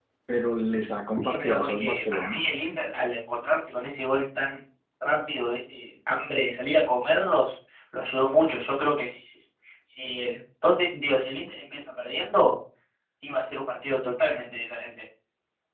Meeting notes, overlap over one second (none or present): present